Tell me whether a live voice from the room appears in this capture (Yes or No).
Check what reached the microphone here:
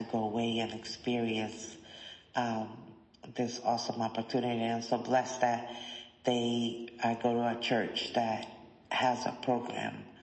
No